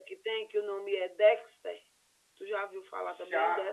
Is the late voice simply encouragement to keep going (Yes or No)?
No